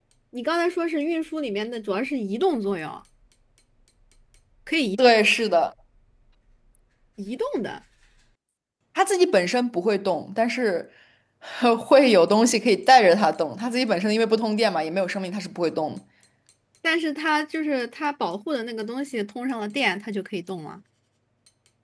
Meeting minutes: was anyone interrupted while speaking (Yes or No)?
No